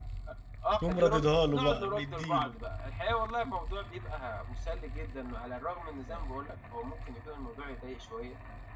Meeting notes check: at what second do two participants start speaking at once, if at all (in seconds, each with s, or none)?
0.9 s